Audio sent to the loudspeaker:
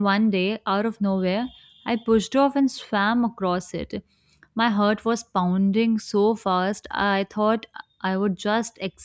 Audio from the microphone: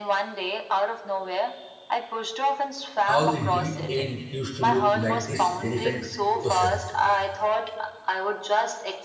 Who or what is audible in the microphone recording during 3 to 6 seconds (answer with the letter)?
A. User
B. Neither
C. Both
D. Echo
C